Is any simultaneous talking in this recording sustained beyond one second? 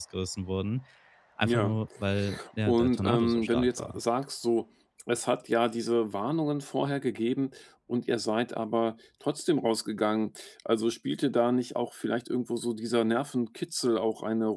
Yes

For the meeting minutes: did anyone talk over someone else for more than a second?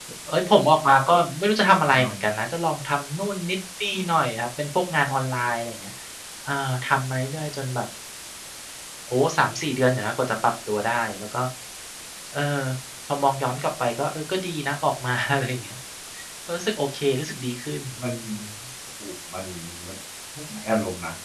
No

